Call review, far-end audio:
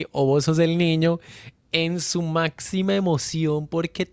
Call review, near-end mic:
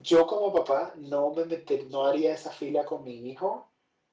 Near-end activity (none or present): present